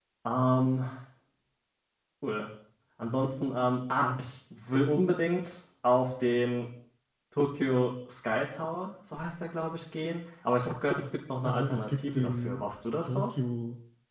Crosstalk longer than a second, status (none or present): present